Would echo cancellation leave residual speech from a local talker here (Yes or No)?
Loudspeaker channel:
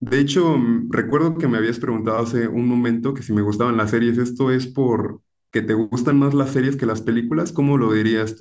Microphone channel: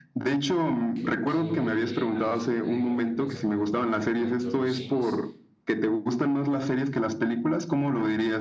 Yes